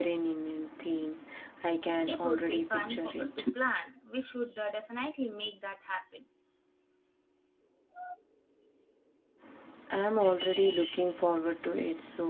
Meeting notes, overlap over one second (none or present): present